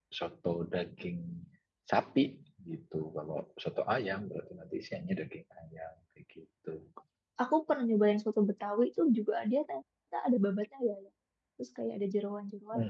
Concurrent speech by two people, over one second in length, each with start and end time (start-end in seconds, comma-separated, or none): none